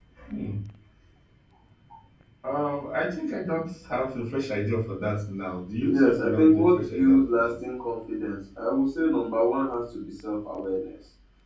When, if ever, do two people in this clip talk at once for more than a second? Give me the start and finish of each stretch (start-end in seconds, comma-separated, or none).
5.9-7.5